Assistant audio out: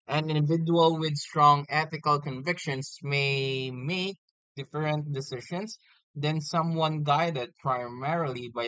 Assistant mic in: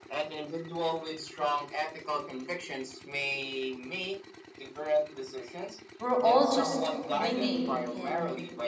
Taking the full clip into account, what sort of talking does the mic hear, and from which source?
both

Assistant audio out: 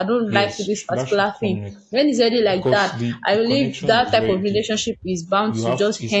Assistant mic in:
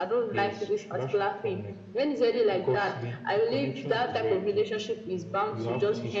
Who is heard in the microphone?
both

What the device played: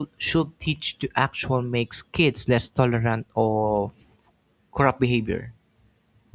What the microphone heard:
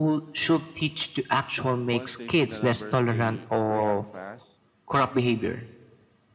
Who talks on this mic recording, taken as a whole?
both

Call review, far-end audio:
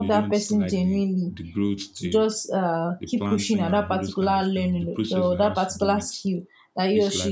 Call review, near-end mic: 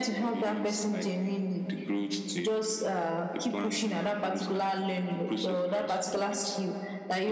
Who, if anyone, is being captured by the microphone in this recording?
echo only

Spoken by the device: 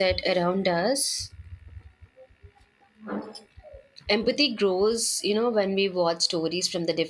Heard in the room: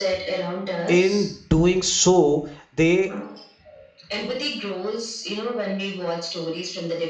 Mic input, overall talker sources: both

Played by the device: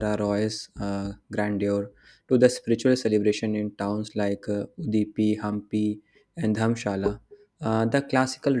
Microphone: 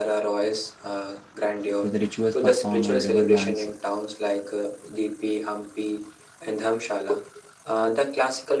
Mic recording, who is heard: both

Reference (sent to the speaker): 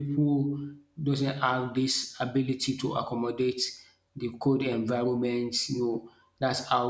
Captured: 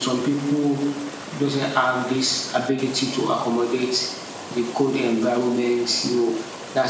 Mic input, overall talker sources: echo only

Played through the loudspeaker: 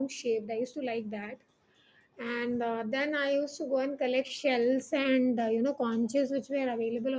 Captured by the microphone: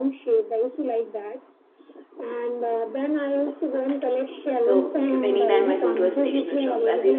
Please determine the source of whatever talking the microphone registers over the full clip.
both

